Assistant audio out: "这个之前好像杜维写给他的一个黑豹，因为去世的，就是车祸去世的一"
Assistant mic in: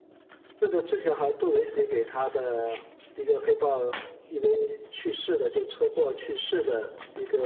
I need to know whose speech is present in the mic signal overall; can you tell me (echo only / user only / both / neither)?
echo only